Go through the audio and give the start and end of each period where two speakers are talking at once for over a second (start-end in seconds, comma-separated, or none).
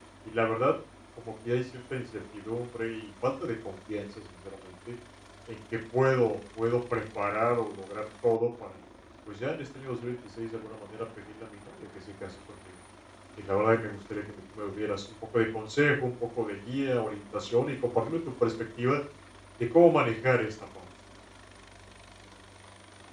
none